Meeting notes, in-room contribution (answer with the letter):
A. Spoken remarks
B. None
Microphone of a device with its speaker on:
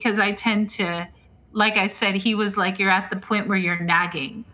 B